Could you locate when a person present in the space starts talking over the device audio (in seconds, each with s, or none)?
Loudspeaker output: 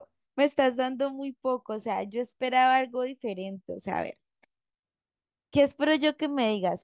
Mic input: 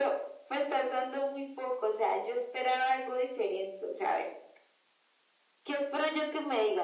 none